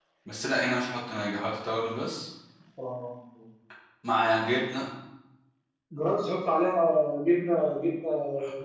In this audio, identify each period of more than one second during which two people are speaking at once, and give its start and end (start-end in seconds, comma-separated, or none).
none